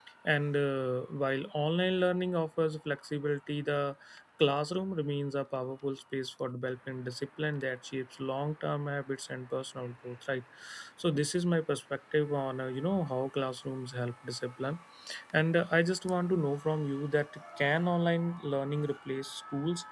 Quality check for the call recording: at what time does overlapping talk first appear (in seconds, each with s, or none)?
none